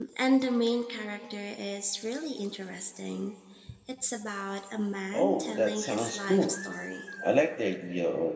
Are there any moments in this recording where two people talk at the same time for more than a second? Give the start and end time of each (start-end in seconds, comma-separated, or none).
5.1-6.6